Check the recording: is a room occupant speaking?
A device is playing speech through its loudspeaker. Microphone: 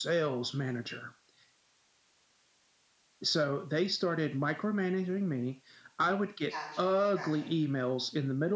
Yes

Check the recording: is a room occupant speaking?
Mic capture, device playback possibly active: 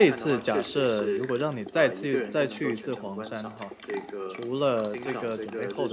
Yes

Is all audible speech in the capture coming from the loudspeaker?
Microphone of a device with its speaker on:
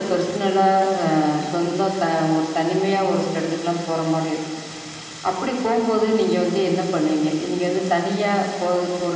Yes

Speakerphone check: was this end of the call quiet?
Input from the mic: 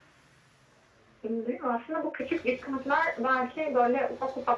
Yes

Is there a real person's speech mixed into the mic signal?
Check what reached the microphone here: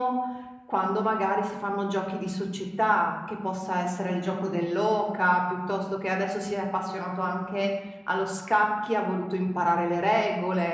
No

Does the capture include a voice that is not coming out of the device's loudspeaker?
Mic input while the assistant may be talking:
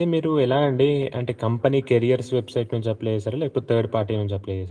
Yes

